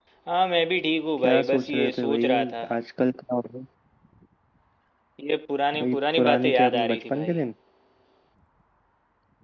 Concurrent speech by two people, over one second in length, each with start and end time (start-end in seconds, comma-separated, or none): 1.2-2.6, 5.8-7.4